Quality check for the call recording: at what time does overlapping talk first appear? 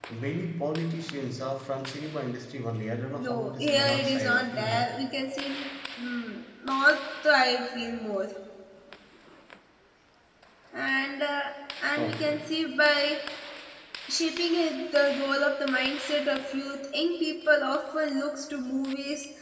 3.2 s

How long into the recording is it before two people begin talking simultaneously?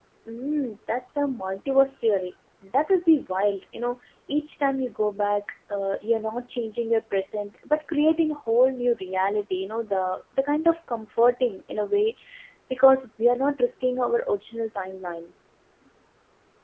none

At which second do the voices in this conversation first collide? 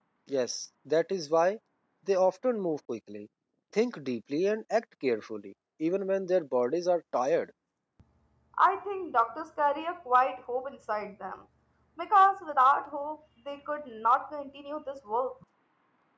none

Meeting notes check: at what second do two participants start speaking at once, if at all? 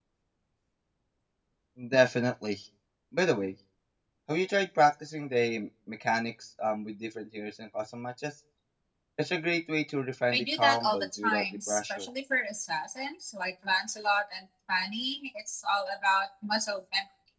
10.3 s

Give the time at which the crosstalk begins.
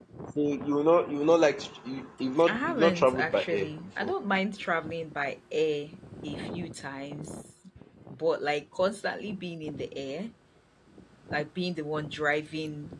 2.4 s

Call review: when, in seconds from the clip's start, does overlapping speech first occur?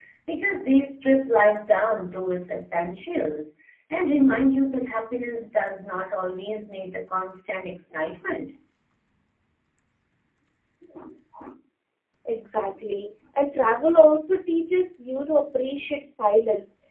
none

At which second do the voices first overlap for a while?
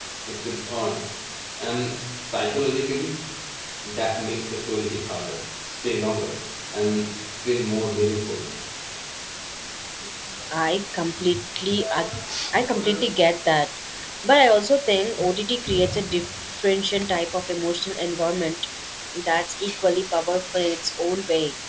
none

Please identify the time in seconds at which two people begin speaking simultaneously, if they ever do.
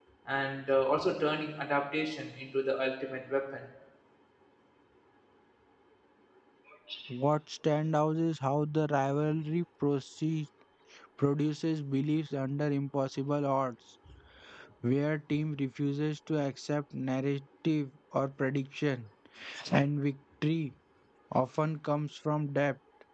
none

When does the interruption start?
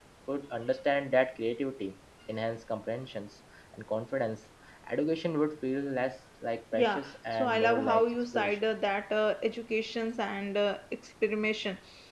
6.7 s

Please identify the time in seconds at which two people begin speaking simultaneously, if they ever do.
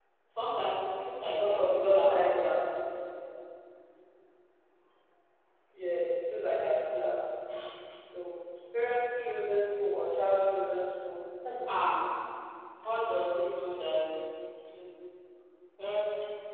1.3 s

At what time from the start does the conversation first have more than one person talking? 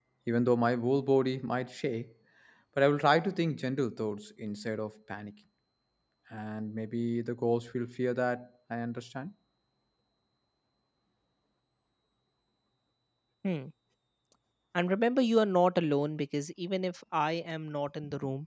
none

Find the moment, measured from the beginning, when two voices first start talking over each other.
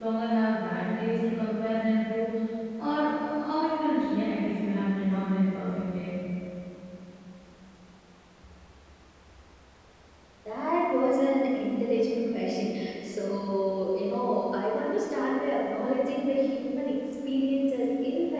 none

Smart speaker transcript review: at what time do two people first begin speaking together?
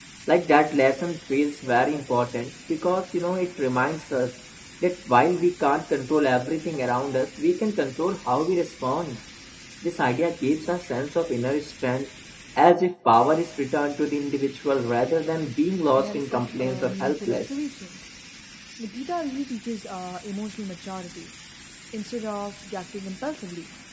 16.0 s

